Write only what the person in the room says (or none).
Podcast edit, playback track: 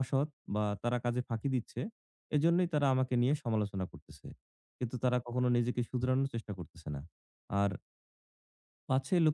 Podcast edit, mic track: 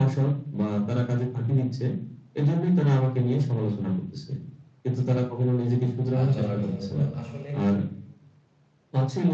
আ চলার জন্য। তো আসলে